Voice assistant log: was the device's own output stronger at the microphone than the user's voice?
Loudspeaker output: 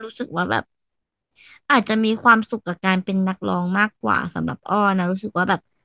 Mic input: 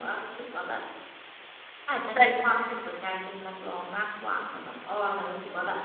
No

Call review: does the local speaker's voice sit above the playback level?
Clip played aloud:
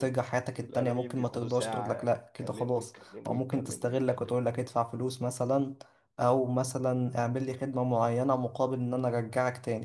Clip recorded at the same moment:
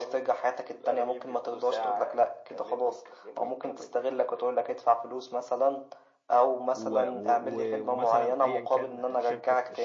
No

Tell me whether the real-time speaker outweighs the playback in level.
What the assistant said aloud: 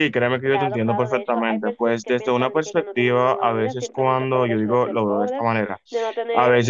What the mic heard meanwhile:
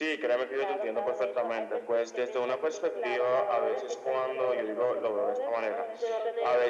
No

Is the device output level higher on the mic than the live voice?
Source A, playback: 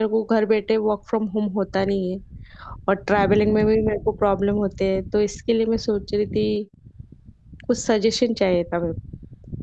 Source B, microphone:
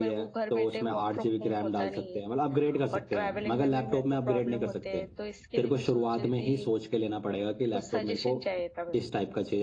No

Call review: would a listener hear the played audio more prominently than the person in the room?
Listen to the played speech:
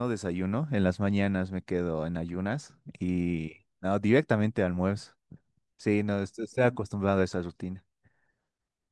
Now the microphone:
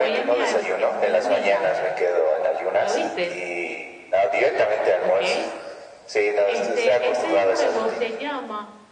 Yes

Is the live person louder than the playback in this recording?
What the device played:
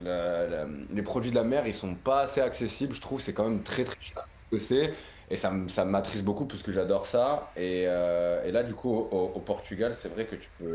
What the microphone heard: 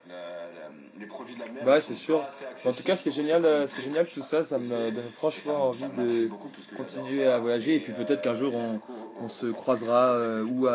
Yes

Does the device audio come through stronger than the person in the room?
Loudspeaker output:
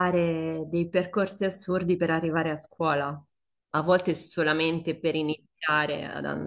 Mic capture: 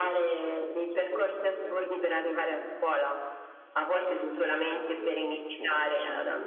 Yes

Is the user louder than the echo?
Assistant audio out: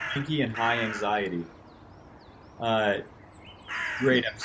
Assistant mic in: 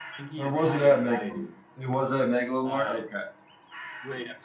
Yes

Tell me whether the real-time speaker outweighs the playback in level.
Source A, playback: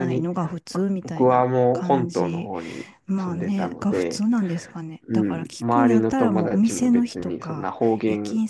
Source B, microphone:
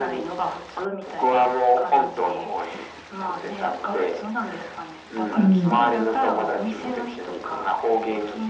Yes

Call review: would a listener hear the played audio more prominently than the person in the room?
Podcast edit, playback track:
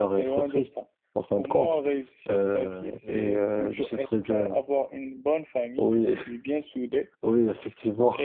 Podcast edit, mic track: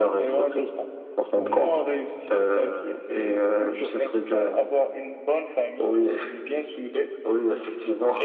Yes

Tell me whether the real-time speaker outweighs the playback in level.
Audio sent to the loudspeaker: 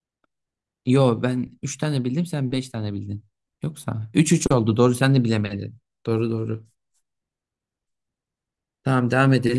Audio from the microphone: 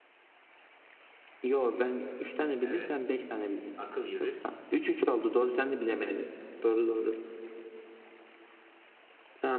No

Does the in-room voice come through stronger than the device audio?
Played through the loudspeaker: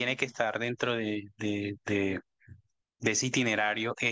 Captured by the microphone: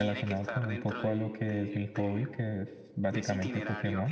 Yes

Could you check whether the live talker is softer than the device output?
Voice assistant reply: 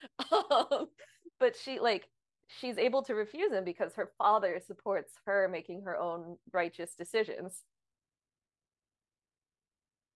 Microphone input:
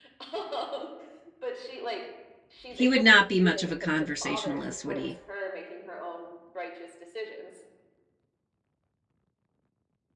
No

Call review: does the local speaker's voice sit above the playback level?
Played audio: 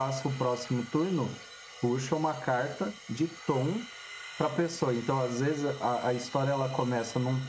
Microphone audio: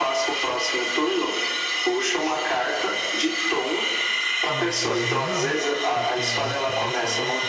No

